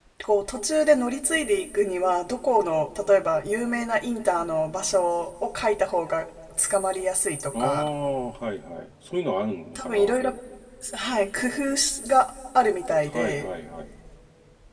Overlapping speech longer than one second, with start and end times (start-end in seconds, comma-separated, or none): none